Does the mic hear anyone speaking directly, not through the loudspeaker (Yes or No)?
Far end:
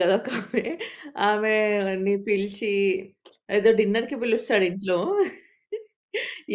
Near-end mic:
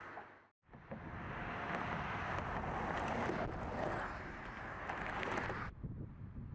No